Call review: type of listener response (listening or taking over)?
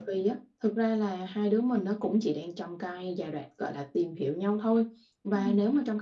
listening